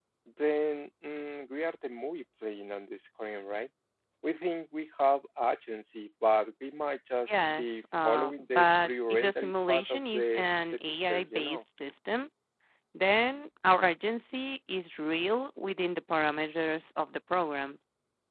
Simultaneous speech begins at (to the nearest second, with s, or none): 7 s